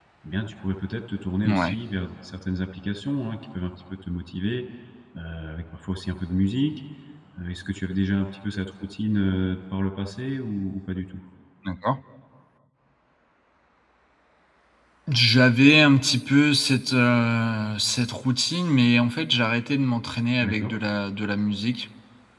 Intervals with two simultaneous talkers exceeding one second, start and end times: none

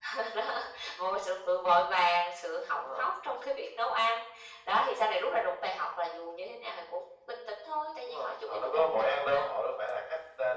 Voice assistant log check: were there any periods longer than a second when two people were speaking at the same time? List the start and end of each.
8.0-9.4

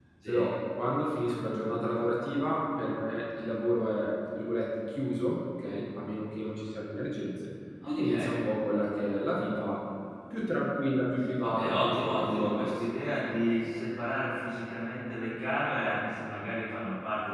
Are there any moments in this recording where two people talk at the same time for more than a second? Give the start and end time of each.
11.4-12.7

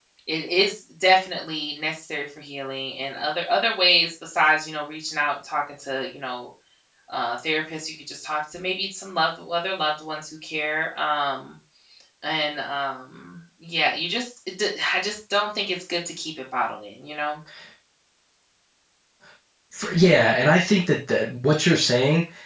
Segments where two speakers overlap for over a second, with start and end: none

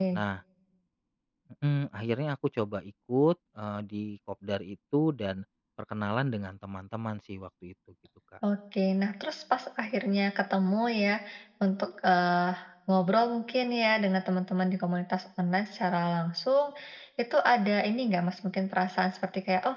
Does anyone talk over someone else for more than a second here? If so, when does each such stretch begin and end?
none

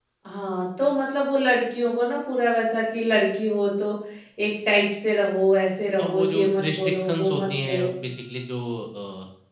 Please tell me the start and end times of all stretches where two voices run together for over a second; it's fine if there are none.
6.0-7.9

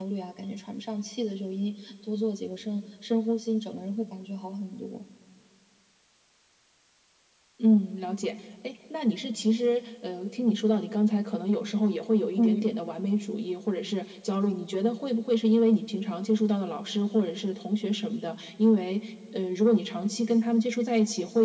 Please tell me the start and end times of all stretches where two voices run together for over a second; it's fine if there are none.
none

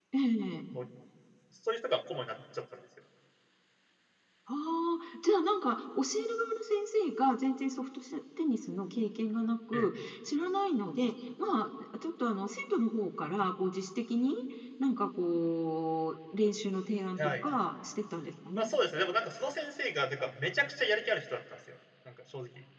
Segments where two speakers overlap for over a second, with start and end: none

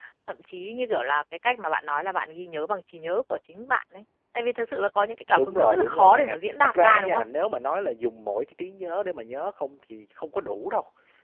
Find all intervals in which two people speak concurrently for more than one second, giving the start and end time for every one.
5.4-7.2

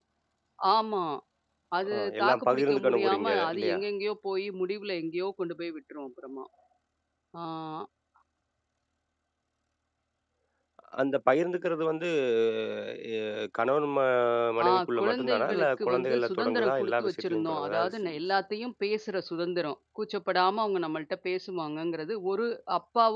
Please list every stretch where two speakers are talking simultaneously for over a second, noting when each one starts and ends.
1.9-3.8, 14.7-18.2

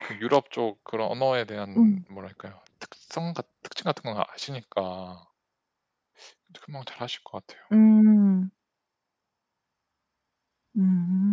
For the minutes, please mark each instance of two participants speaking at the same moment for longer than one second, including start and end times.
none

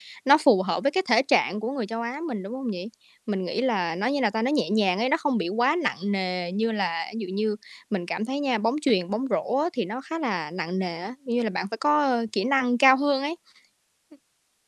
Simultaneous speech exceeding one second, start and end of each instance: none

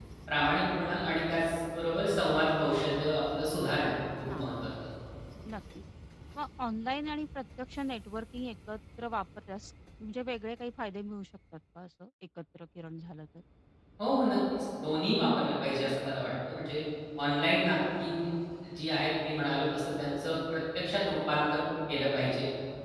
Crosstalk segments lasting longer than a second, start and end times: none

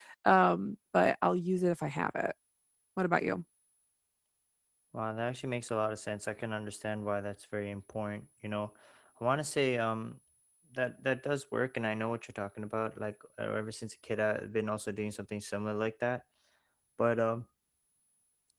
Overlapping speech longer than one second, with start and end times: none

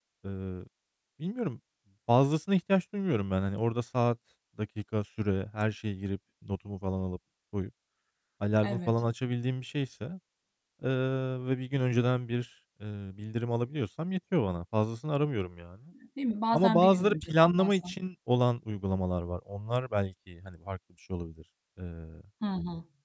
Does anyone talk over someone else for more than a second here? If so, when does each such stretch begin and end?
16.5-17.9

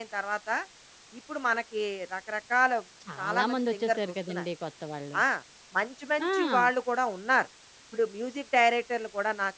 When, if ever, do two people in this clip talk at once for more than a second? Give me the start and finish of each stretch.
3.2-4.4

